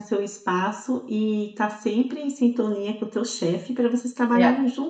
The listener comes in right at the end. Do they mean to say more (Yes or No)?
No